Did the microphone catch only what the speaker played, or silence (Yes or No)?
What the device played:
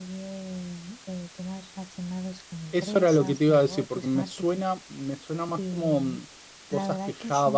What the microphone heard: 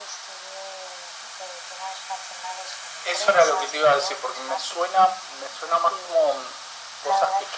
Yes